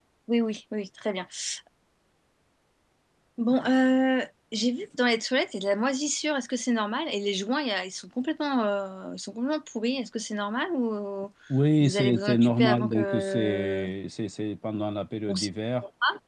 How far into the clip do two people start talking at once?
11.8 s

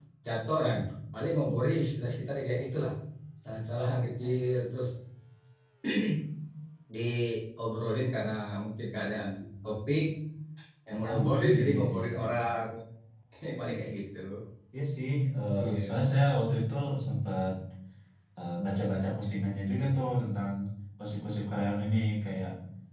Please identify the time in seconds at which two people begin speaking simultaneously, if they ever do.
11.1 s

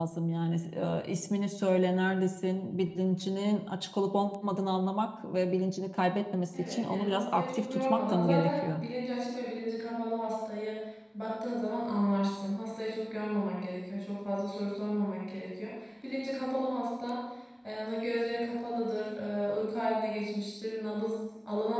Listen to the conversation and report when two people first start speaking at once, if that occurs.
6.5 s

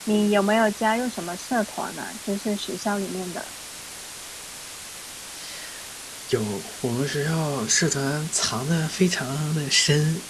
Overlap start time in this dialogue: none

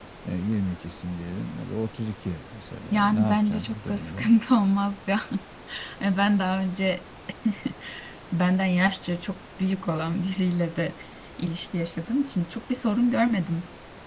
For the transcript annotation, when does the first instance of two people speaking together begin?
2.9 s

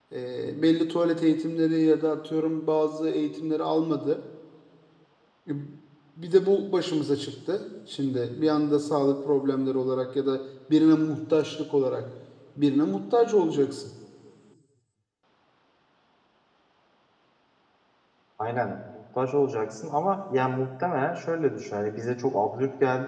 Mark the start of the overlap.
none

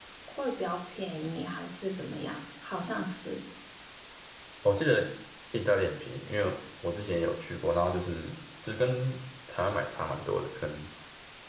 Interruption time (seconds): none

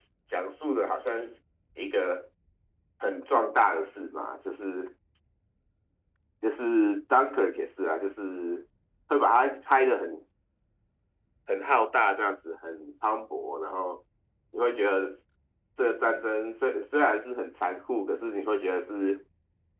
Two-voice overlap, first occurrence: none

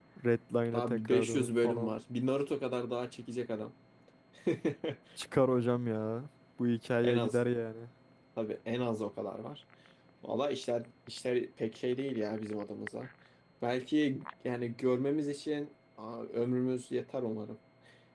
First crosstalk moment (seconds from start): 0.7 s

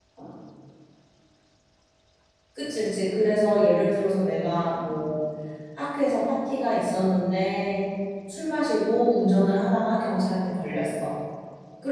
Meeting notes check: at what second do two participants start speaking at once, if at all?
none

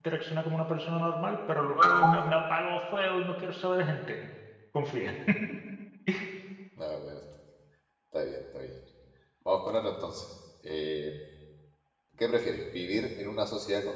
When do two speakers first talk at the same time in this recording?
none

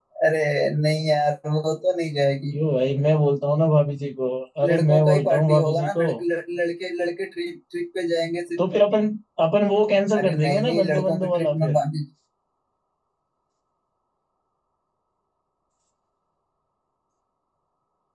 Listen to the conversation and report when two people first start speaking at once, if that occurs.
4.6 s

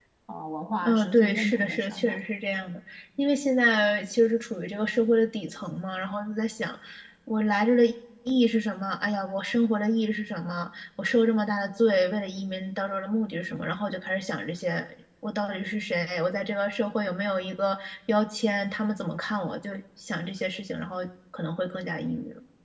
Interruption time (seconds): 0.8 s

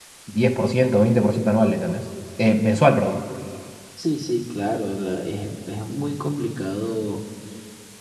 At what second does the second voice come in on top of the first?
none

